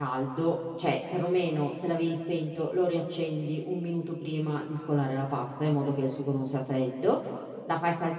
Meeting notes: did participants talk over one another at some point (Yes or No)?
No